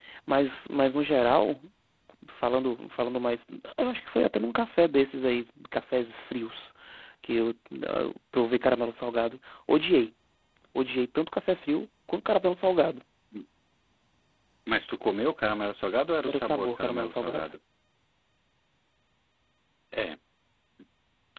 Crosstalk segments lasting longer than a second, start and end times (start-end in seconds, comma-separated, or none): 16.3-17.5